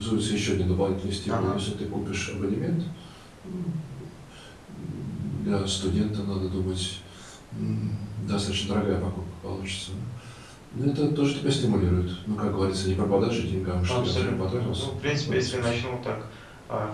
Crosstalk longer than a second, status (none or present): present